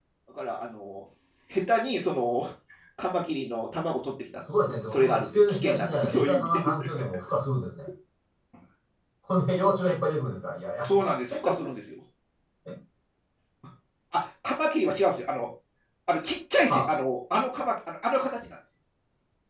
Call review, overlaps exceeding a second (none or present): present